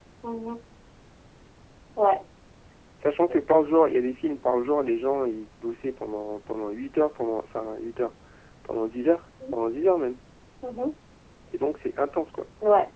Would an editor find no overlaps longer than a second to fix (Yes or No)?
Yes